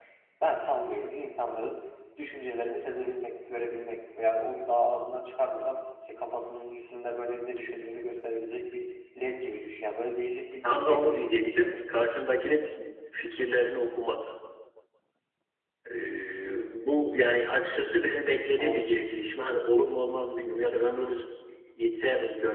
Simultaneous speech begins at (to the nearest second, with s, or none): 11 s